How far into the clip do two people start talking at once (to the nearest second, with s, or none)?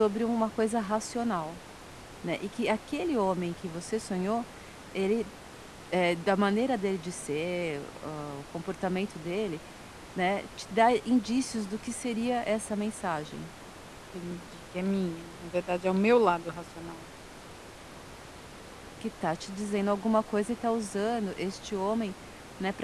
none